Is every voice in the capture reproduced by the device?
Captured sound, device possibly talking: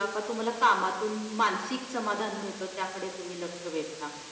Yes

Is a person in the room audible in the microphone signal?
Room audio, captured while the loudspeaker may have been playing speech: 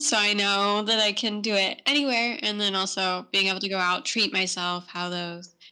No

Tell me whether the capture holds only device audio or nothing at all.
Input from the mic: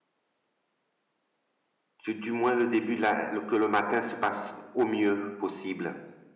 No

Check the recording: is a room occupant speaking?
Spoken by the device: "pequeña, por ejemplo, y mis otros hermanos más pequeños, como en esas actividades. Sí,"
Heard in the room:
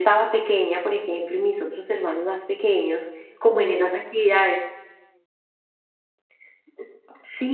No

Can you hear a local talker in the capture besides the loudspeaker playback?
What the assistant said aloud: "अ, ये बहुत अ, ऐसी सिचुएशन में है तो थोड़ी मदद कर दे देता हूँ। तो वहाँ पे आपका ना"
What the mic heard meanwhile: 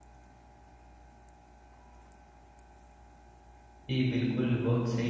Yes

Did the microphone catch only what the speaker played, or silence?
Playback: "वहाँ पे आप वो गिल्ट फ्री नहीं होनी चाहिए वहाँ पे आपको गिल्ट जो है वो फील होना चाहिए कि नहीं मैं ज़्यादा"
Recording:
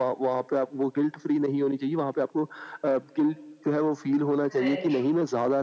No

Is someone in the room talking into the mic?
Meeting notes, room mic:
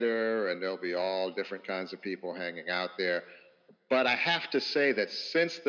No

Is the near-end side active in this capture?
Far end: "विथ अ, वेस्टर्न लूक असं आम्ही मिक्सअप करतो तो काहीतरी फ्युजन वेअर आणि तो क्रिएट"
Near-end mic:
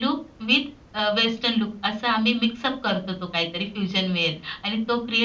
No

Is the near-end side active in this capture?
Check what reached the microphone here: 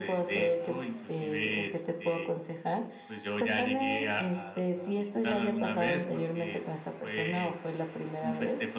No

